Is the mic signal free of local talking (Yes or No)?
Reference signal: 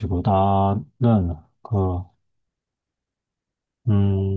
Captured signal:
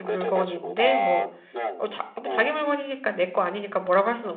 No